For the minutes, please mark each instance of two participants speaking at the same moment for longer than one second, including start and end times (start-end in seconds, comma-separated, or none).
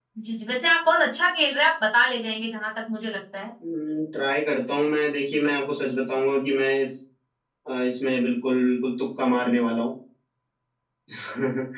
none